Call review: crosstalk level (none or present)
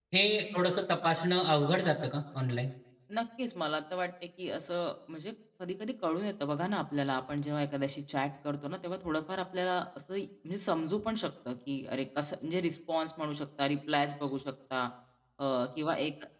none